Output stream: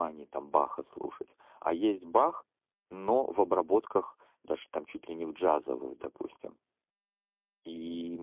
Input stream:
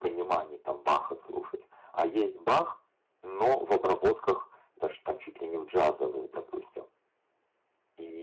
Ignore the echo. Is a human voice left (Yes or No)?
No